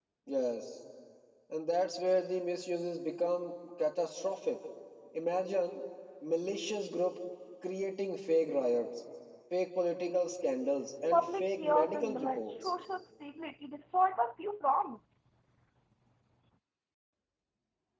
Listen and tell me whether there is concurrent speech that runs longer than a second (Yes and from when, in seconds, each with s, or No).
Yes, from 11.1 s